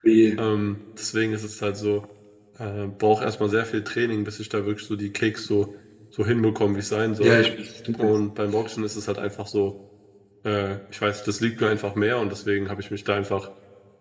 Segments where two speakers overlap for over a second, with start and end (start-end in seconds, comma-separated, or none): none